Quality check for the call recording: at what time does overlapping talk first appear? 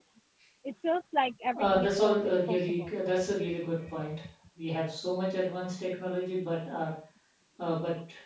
2 s

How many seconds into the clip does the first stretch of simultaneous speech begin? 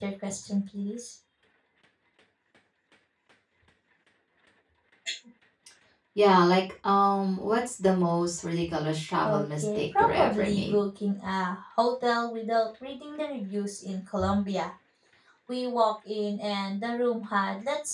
9 s

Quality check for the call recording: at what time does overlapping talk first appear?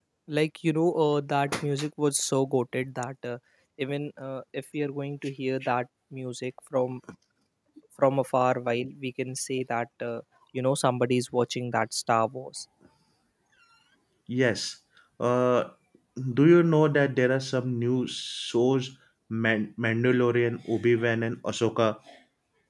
none

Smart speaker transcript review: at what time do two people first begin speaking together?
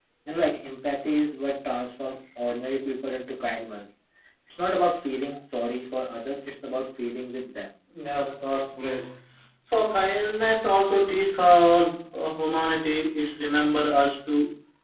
none

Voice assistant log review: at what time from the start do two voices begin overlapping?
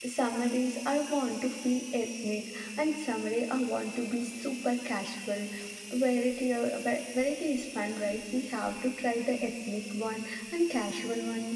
none

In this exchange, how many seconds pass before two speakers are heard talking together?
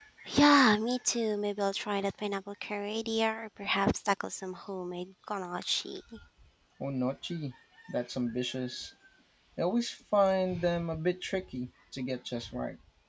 none

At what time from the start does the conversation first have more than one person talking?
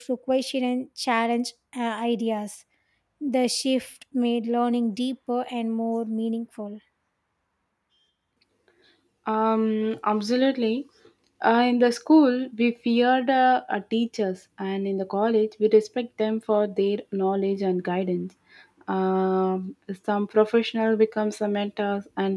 none

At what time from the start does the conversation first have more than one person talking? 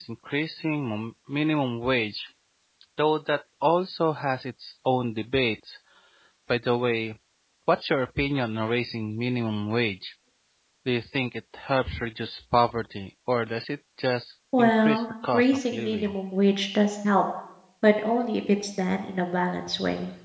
15 s

